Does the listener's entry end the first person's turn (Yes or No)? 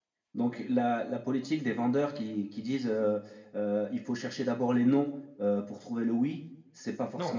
Yes